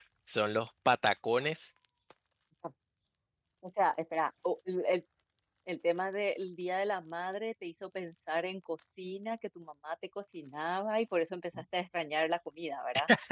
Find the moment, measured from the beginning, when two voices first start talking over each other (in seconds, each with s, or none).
none